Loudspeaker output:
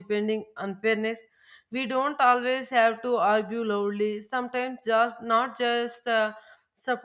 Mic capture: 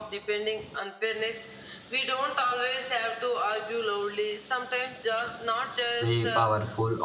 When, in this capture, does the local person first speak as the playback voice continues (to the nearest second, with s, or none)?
6 s